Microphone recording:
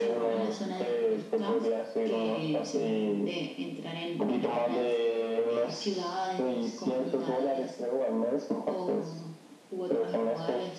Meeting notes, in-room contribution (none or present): none